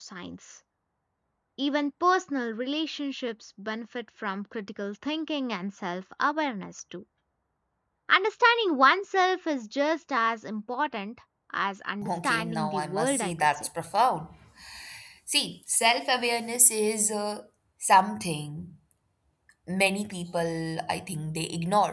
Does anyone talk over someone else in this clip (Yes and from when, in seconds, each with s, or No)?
Yes, from 12.0 s